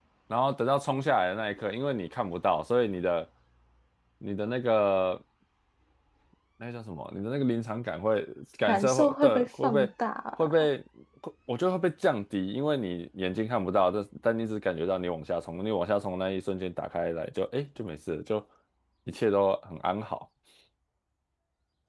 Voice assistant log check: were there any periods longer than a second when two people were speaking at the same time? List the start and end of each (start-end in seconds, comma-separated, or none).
8.7-9.9